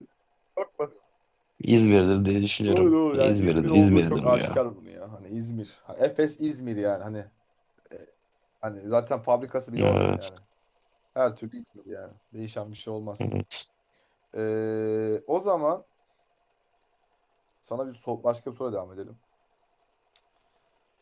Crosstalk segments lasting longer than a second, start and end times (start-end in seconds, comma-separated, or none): 2.7-4.6